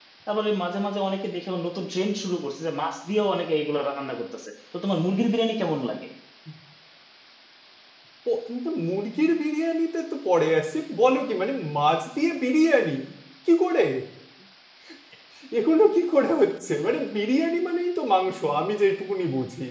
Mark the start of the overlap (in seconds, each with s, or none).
none